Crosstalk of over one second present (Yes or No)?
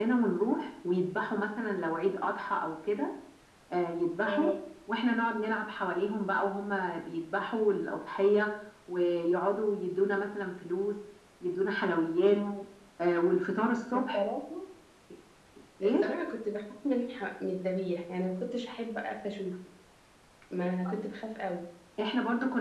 No